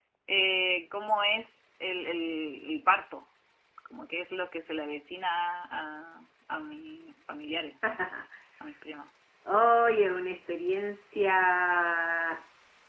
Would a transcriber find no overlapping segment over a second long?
Yes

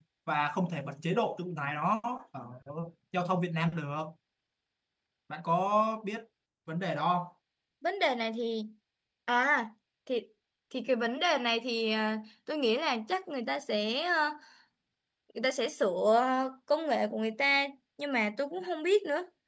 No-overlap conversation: Yes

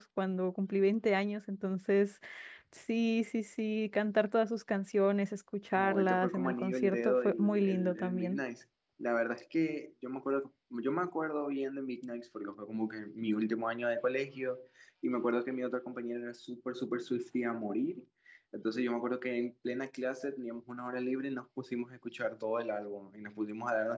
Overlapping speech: Yes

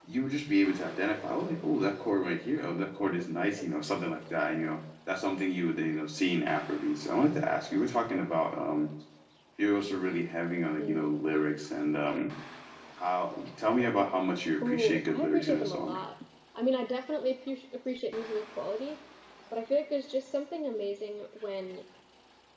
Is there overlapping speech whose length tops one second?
Yes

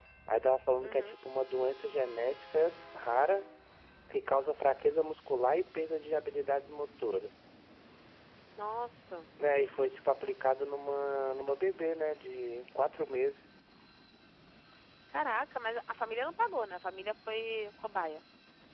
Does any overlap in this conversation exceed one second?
No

